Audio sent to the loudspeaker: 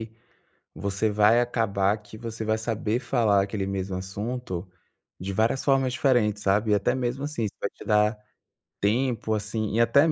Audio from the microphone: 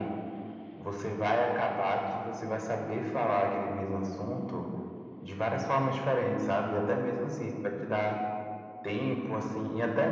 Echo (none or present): present